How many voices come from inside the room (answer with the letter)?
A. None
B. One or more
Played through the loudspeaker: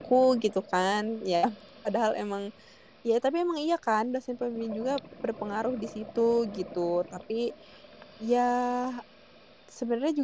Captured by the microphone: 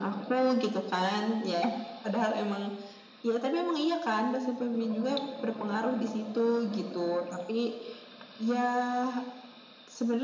A